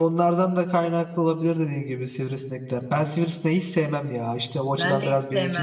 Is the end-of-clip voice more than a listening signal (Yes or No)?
Yes